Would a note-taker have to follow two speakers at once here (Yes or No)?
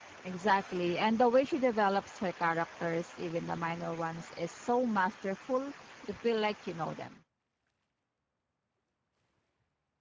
No